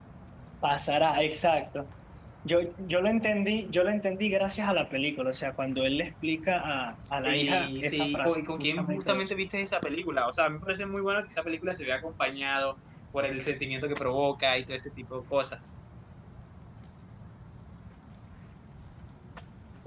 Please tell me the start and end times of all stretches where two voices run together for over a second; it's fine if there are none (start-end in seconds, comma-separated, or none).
7.2-9.3